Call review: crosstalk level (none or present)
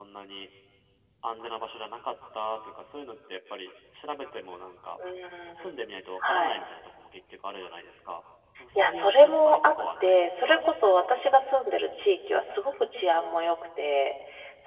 present